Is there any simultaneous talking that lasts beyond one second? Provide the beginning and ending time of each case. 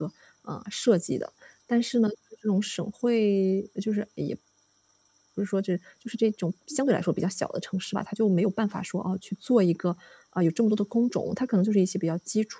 none

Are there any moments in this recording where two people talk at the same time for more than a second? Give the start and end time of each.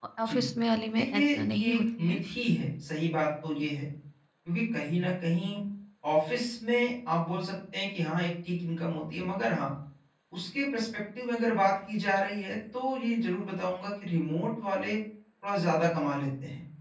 1.0-2.2

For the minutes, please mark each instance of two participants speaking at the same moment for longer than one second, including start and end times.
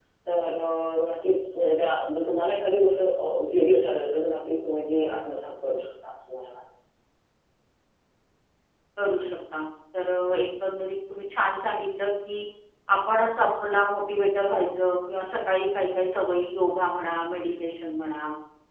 none

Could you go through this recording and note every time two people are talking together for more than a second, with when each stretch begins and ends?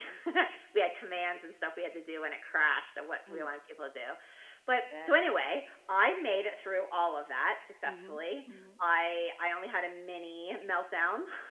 none

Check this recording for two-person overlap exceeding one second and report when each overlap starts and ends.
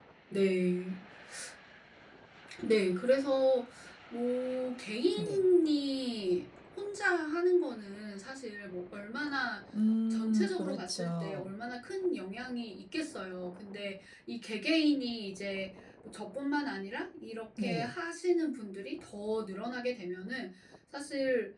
10.1-11.4

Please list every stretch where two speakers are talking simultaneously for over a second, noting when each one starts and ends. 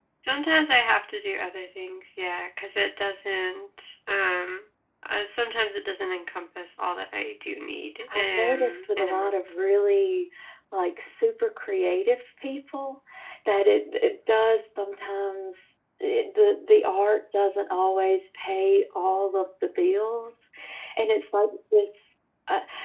8.1-9.4

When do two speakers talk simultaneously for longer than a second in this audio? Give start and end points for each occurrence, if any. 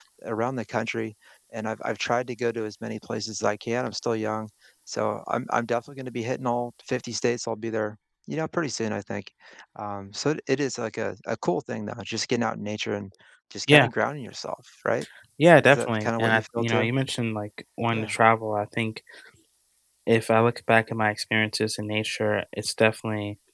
15.7-16.9

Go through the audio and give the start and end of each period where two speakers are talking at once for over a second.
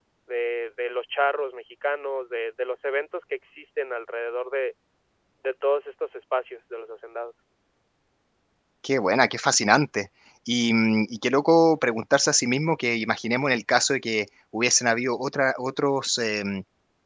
none

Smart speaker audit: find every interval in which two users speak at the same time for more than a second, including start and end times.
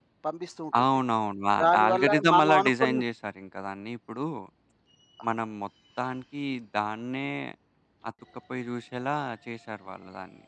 1.6-3.0

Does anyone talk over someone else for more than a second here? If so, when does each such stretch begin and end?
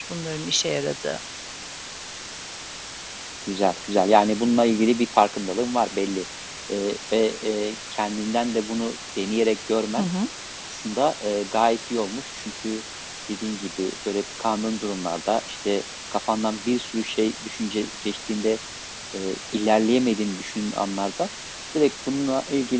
none

